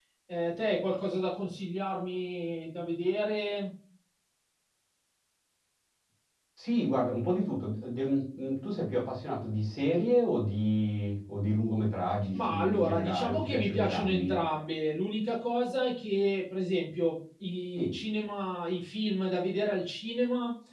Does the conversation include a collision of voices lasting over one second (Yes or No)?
Yes